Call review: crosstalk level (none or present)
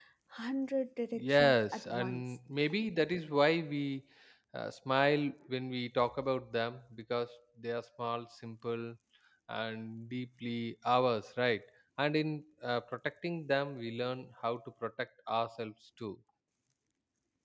present